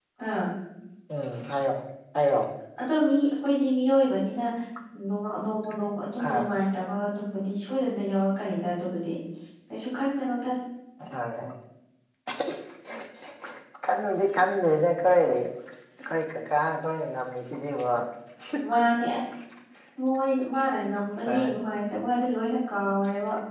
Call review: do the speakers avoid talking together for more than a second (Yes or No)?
Yes